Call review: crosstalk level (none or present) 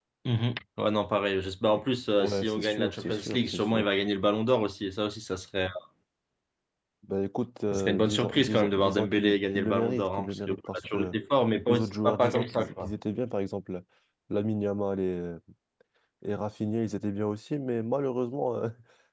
present